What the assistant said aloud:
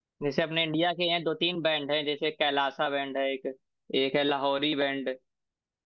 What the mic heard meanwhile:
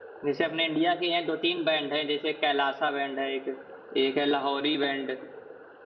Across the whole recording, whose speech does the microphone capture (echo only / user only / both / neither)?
echo only